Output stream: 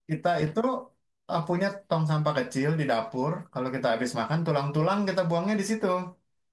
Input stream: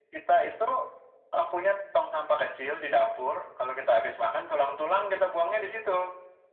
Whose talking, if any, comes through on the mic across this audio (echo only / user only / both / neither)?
echo only